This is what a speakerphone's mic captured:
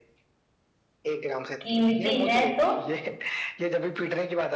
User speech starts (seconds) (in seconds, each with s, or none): 1.6 s